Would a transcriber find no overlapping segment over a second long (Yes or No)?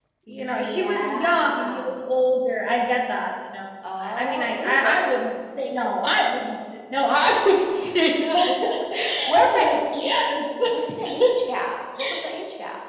No